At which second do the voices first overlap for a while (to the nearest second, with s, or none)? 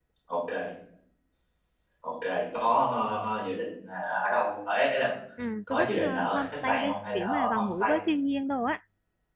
6 s